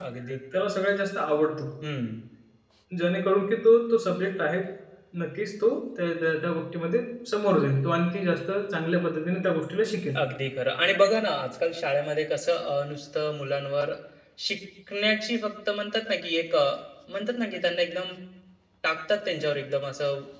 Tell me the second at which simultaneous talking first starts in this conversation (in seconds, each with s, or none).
none